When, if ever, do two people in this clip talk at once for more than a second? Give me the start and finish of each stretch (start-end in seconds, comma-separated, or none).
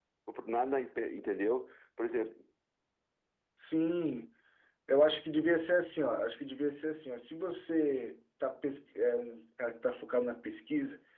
none